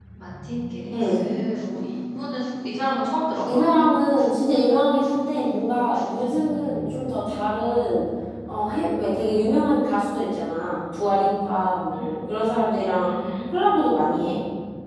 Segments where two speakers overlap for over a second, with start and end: none

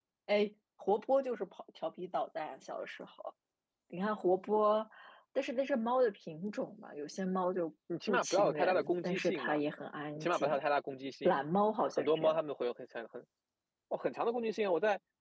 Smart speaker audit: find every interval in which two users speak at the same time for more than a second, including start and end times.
8.1-9.6

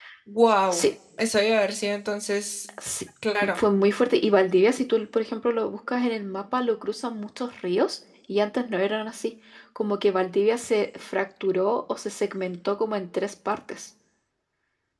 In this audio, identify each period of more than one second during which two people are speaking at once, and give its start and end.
none

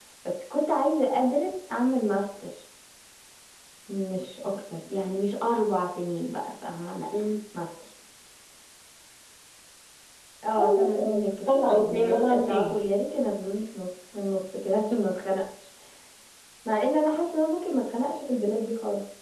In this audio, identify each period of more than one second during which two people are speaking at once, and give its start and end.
10.6-12.7

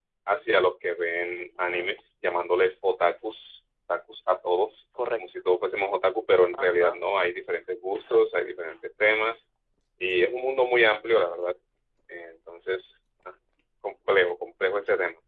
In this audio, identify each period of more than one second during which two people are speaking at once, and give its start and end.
none

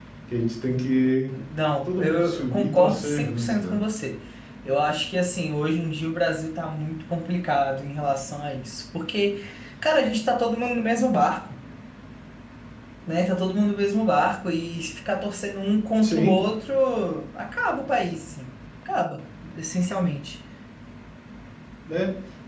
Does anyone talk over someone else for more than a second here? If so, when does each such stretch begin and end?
1.9-3.8

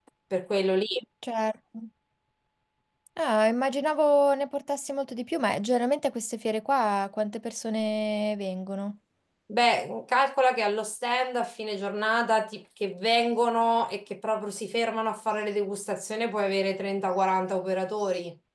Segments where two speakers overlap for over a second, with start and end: none

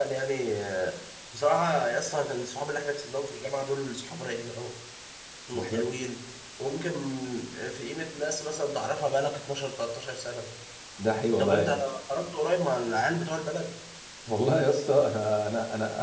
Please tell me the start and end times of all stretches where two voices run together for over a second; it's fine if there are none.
none

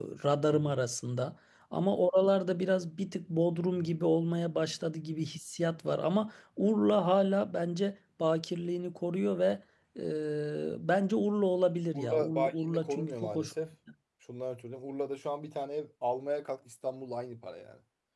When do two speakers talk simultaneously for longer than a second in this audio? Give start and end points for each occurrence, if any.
11.9-13.5

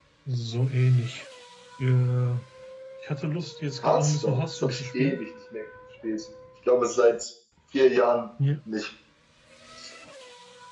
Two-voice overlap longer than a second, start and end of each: 3.8-5.2

